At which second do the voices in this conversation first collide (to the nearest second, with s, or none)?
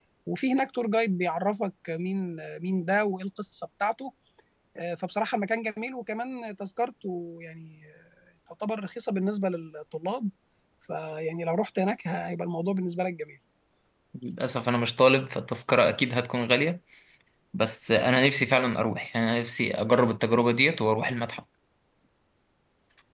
none